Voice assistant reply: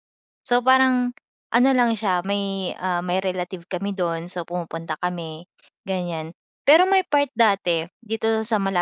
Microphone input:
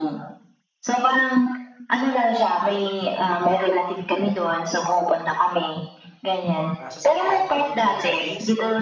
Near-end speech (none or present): present